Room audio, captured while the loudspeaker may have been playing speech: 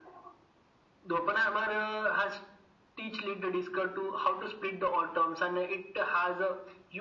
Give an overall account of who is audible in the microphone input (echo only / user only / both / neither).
echo only